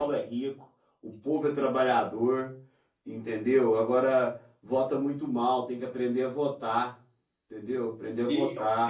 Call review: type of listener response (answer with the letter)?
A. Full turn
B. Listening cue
A